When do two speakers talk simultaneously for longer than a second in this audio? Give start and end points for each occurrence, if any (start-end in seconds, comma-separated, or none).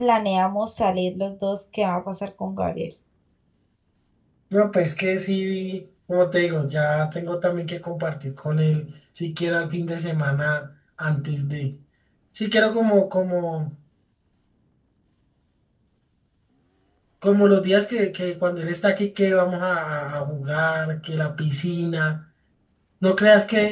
none